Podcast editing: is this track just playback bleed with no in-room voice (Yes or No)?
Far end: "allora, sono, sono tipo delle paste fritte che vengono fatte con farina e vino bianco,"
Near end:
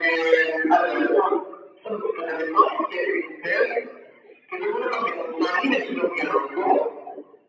Yes